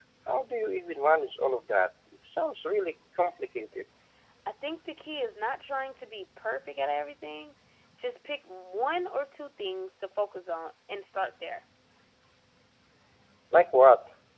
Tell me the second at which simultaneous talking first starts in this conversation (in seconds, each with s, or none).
none